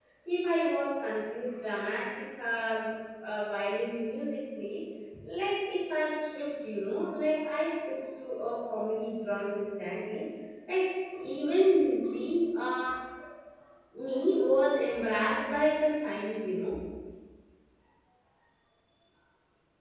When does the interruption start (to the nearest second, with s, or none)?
none